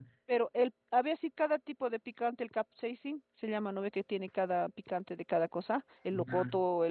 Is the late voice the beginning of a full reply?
No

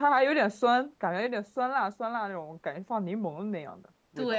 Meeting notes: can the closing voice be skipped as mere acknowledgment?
No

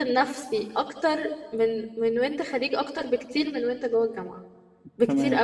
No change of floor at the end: No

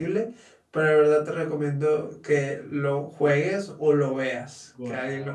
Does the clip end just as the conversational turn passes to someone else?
Yes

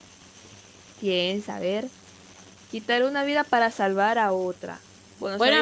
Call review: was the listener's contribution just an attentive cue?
No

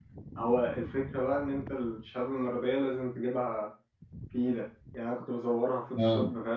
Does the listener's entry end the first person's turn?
No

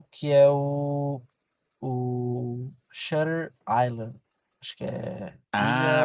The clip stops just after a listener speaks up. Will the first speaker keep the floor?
No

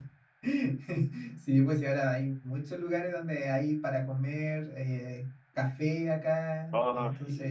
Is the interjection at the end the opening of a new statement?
No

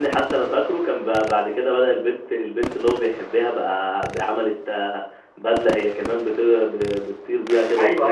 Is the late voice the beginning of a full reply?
Yes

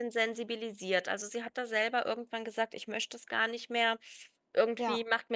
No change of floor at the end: Yes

